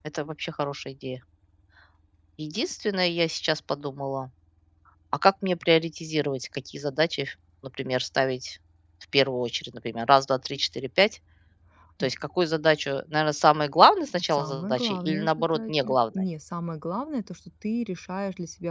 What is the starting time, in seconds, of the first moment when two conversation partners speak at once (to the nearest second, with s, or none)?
14 s